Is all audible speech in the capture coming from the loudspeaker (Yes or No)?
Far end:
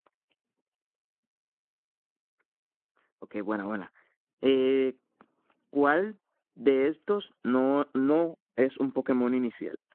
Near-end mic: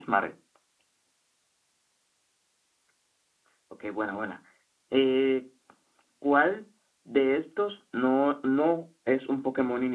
Yes